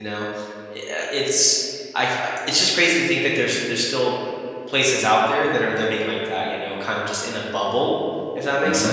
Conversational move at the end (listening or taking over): taking over